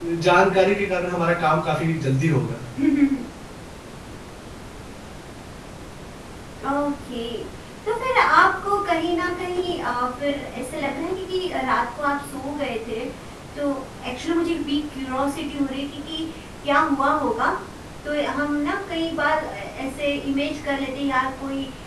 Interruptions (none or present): none